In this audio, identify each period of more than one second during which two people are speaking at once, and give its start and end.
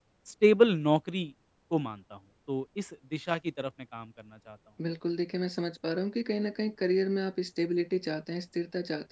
none

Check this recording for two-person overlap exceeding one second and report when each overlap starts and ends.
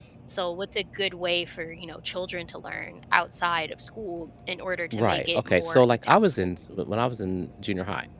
4.9-6.5

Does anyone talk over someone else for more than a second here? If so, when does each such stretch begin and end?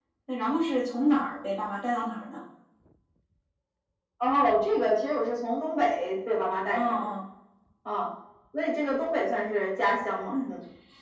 none

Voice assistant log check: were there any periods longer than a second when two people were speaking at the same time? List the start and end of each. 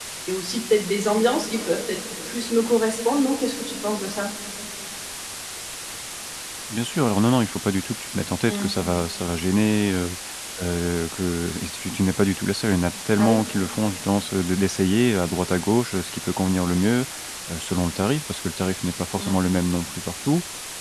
none

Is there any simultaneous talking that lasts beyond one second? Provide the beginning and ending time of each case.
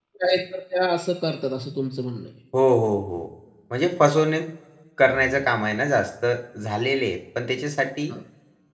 none

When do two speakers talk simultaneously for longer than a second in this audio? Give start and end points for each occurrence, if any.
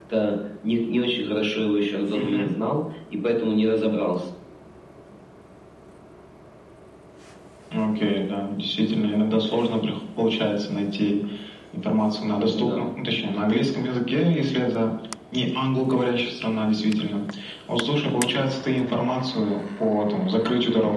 none

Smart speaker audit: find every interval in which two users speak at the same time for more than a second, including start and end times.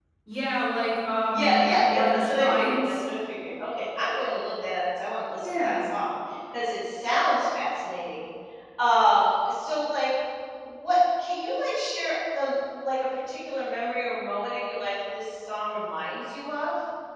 1.3-2.9

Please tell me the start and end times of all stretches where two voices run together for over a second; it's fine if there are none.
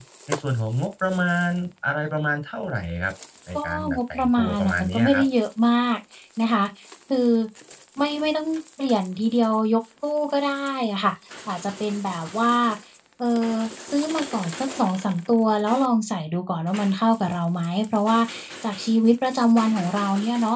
3.5-5.2

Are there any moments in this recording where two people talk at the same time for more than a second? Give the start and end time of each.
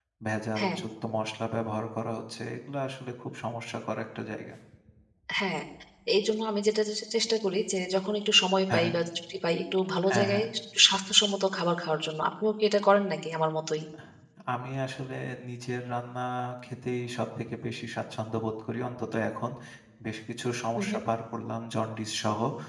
none

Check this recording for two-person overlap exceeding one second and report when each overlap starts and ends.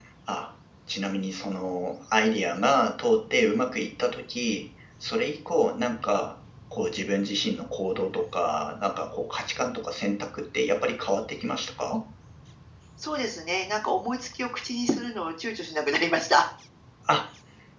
none

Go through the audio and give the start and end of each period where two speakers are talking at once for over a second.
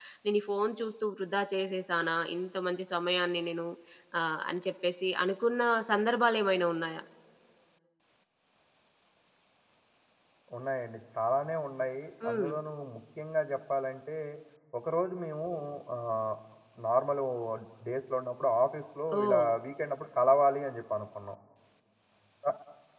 none

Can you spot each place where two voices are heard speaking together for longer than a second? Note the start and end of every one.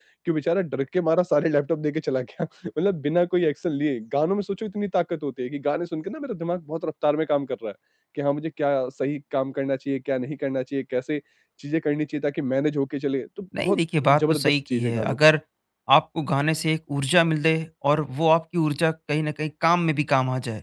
13.6-15.2

